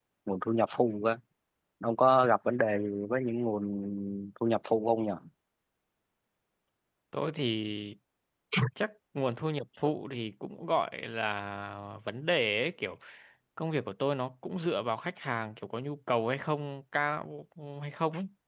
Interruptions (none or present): none